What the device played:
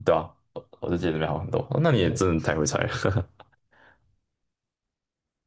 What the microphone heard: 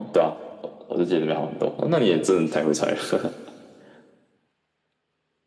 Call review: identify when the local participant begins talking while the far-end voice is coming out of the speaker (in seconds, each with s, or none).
none